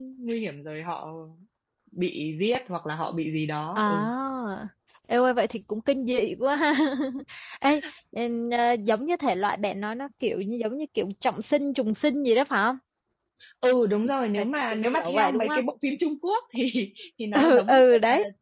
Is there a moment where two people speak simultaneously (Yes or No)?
Yes